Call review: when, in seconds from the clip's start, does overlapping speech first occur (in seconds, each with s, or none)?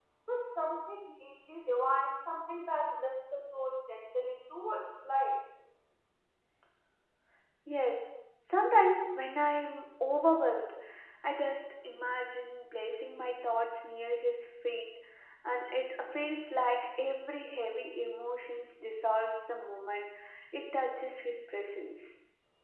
none